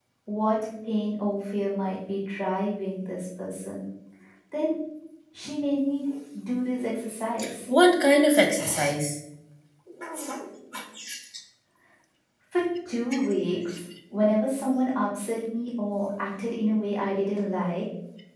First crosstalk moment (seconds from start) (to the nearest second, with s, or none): none